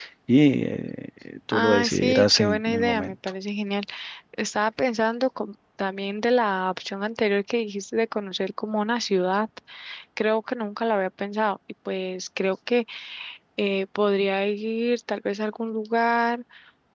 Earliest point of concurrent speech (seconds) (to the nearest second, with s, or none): 2 s